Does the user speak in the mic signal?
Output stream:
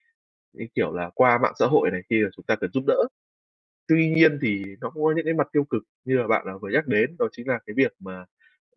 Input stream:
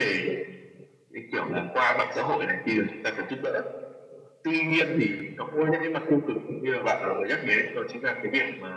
No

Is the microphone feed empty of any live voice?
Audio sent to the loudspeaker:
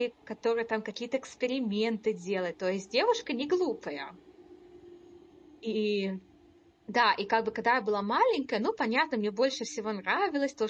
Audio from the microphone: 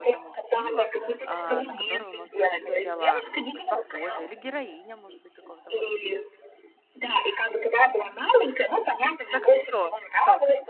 No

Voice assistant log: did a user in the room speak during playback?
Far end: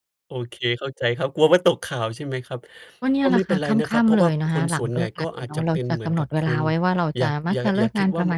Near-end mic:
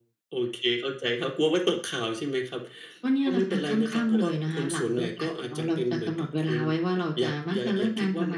No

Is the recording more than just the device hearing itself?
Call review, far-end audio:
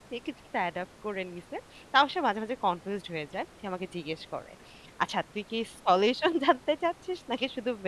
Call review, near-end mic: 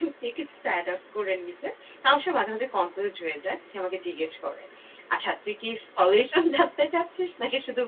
No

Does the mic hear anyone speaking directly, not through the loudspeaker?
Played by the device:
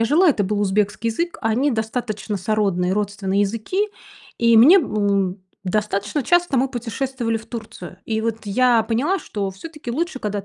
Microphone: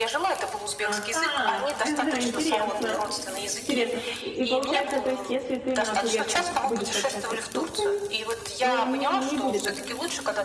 Yes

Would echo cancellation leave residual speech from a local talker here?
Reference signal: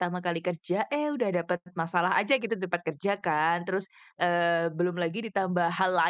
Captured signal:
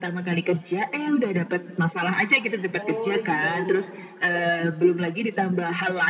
Yes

